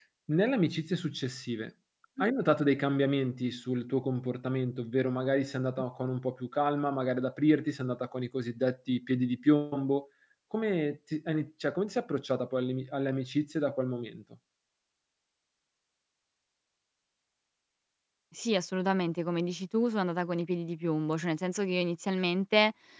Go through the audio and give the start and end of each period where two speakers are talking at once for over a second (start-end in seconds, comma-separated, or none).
none